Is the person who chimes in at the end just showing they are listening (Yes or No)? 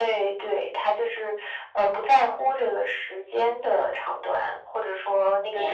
Yes